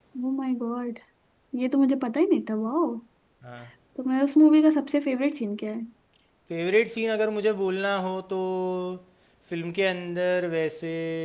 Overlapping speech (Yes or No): No